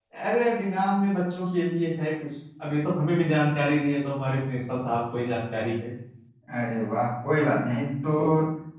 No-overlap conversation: Yes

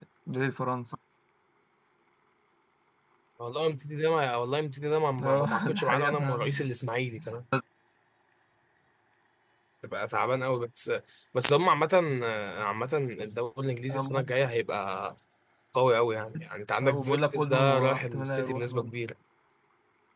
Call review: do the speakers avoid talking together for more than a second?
No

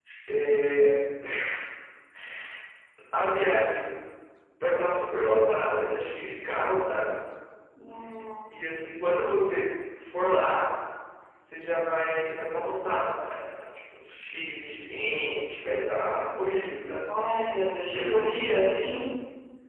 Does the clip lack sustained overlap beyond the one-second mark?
Yes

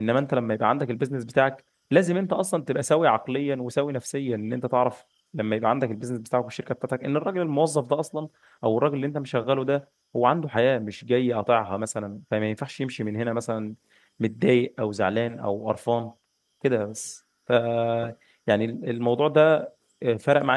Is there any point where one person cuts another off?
No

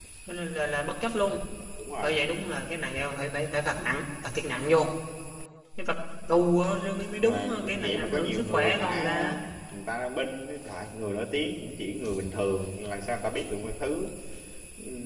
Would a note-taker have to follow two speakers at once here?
Yes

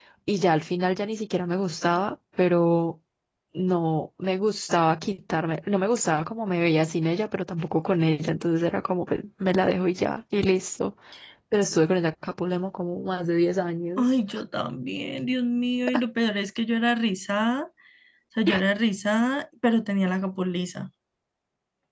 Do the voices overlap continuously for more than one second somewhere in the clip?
No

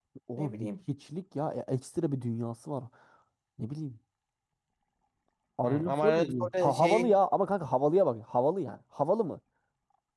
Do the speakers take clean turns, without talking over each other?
No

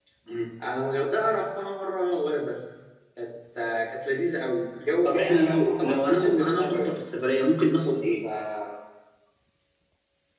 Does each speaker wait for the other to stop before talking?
No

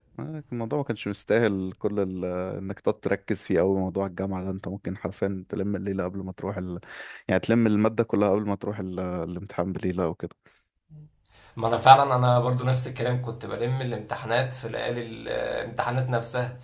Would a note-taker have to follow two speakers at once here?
No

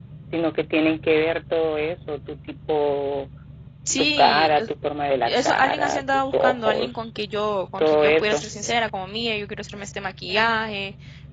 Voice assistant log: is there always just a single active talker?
No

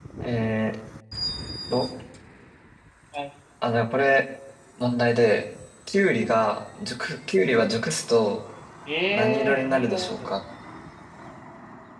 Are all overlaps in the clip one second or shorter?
No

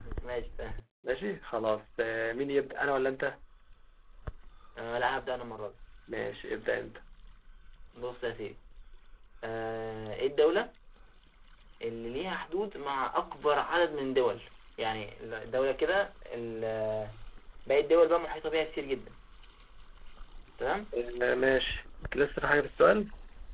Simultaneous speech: No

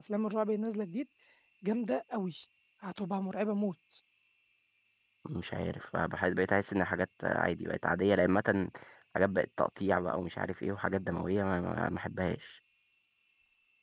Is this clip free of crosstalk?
Yes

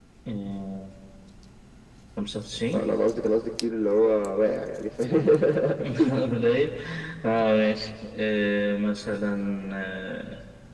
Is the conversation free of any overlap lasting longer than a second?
Yes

